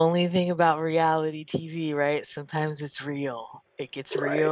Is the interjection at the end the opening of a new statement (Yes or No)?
No